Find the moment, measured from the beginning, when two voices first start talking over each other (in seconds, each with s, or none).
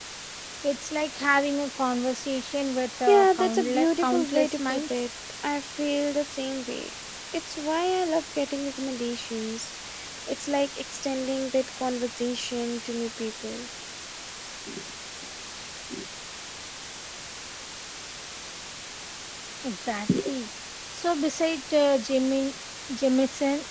3.1 s